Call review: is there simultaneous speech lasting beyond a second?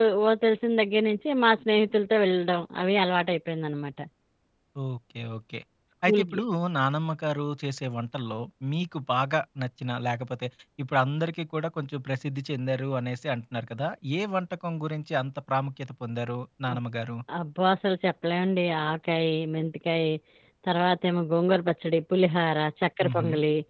No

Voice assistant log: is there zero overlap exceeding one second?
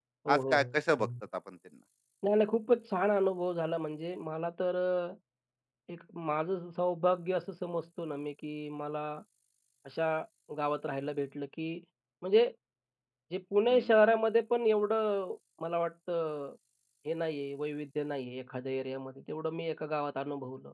Yes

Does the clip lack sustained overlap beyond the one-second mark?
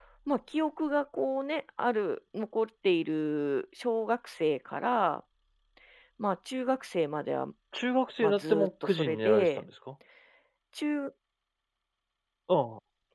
No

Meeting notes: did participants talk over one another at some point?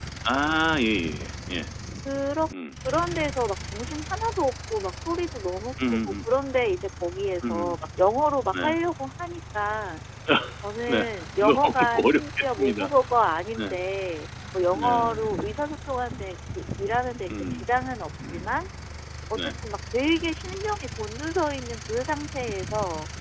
Yes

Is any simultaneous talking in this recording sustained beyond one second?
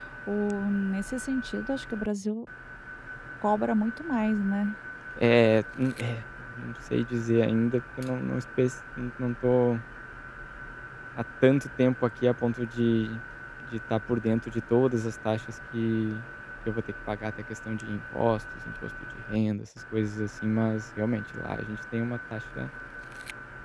No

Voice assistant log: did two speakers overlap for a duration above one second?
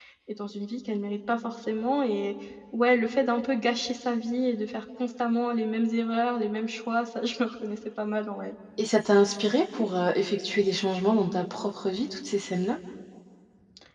No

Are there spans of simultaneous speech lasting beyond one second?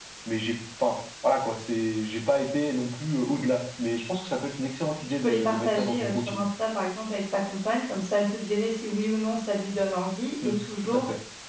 Yes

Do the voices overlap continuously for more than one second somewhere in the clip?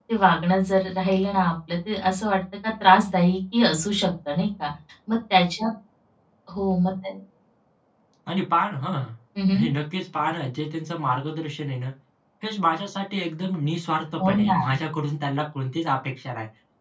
No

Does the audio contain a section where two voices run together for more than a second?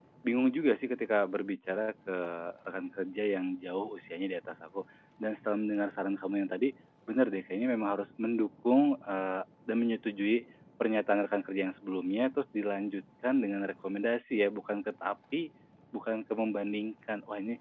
No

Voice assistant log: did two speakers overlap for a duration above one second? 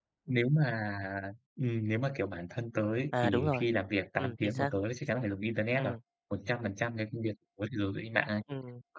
No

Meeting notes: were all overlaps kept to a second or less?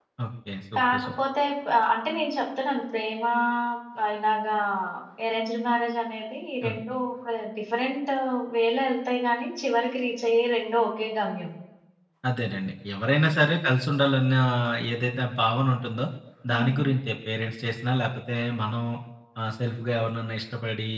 Yes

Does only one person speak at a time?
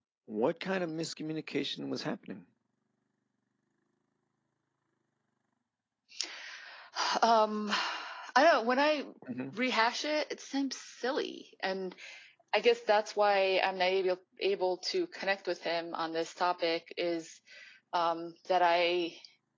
Yes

